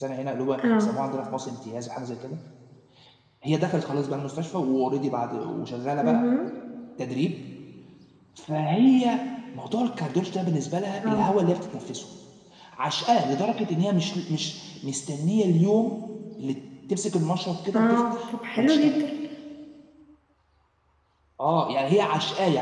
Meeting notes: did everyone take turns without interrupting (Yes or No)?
No